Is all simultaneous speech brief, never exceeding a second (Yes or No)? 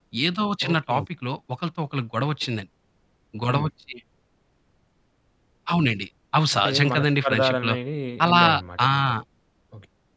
No